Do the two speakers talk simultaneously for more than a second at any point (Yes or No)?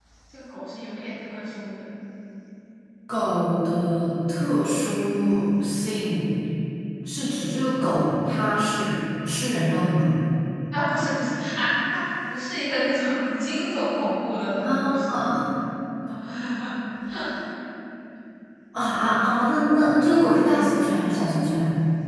No